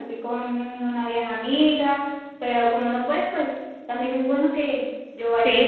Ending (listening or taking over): taking over